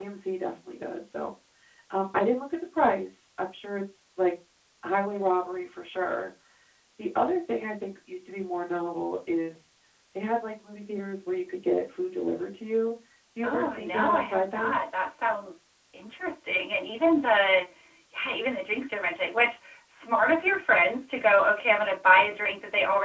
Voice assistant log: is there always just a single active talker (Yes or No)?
No